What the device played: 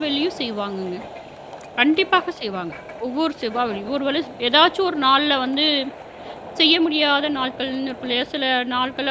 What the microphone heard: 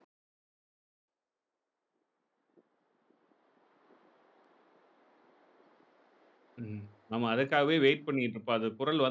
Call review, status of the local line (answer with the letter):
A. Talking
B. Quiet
A